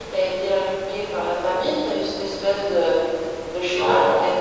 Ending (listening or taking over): listening